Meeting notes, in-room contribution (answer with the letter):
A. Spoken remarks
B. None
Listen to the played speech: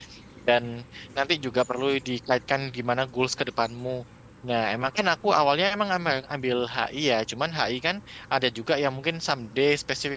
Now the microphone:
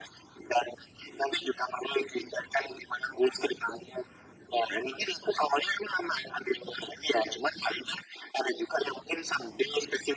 B